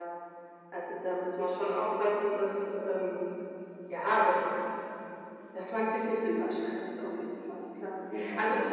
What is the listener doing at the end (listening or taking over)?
listening